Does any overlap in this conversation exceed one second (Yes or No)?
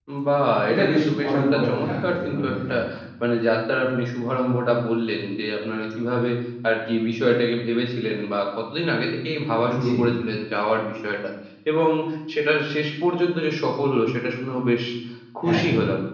Yes